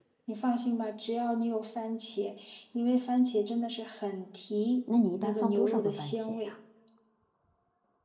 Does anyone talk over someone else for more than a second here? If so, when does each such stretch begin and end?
5.1-6.5

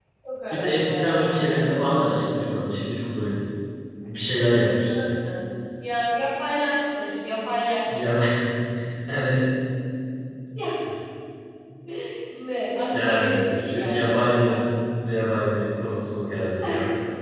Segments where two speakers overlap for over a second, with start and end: 0.5-2.4, 12.9-14.6

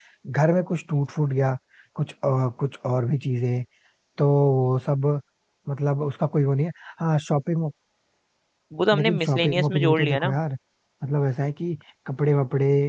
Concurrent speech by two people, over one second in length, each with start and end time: 8.9-10.4

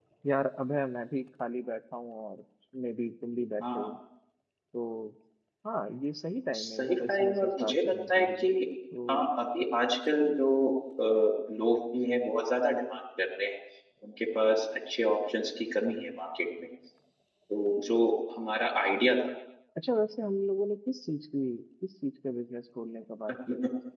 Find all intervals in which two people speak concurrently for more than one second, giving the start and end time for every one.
6.5-8.5

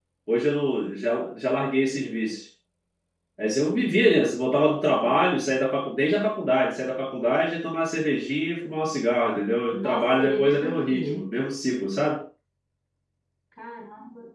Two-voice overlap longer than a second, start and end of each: 9.7-11.2

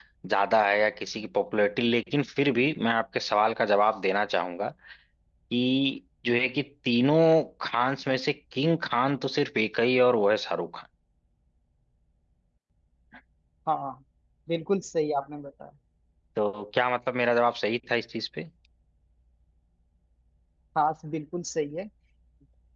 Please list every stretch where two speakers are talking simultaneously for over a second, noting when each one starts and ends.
none

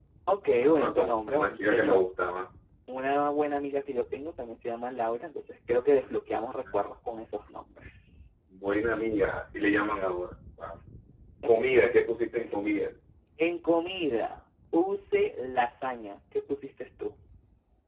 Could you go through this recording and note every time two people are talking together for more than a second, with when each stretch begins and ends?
0.6-2.0

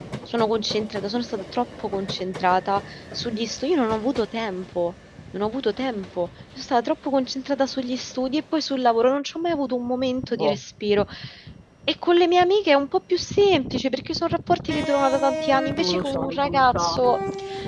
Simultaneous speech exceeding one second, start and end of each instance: 15.8-17.0

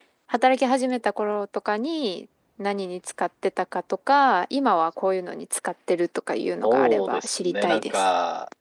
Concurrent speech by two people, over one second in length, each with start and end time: 6.6-8.1

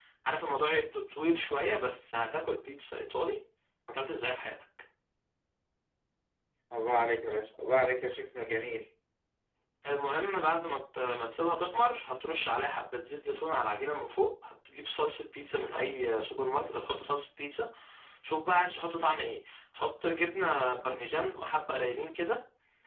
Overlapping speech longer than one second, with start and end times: none

